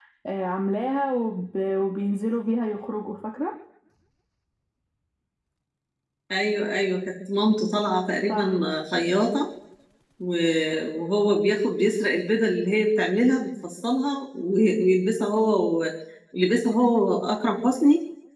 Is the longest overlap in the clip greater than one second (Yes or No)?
No